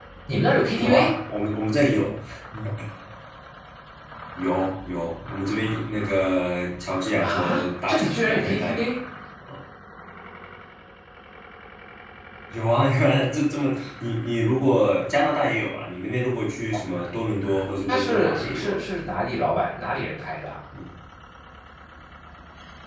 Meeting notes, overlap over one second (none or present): present